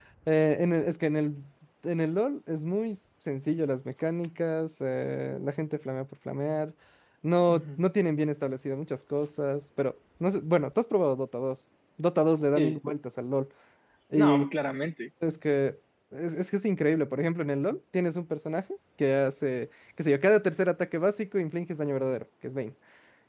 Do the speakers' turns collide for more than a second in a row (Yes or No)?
No